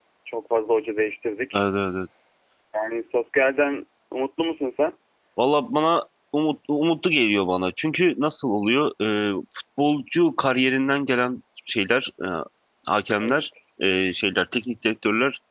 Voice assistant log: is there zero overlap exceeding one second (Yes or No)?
Yes